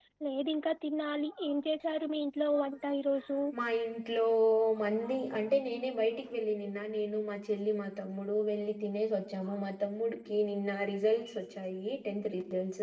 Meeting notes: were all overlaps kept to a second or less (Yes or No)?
Yes